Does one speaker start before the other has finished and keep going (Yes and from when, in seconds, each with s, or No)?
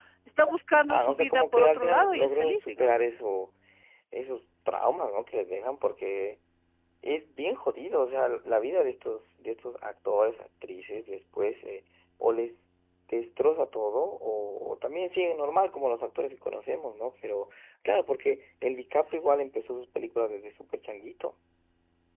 Yes, from 0.9 s